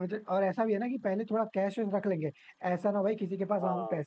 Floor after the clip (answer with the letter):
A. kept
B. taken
A